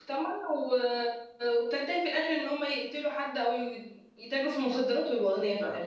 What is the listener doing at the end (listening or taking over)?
taking over